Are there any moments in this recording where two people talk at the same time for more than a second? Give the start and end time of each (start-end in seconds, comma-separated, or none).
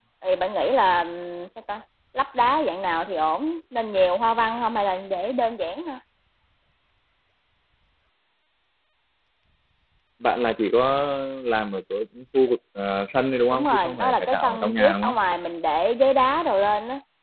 13.5-15.2